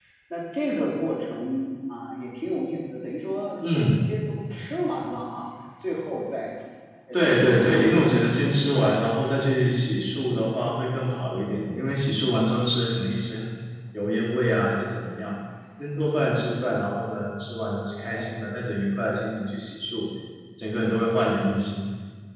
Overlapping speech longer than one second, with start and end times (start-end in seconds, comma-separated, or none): 7.1-8.9